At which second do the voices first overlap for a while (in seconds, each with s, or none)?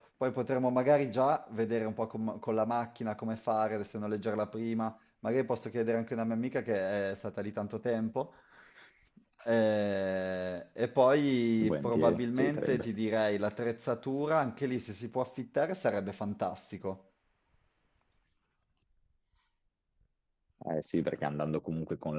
11.6 s